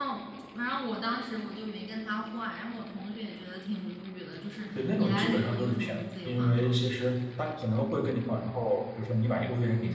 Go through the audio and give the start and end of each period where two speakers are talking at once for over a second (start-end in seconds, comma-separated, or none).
4.7-6.7